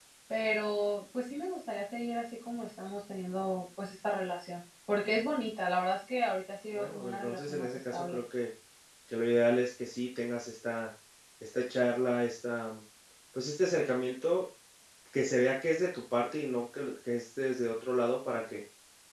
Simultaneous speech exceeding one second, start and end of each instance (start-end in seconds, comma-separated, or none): 6.8-8.2